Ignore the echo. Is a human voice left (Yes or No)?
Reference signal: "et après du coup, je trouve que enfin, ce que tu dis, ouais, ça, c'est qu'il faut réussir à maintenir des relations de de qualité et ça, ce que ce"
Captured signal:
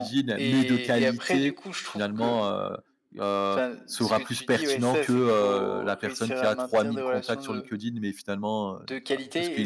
Yes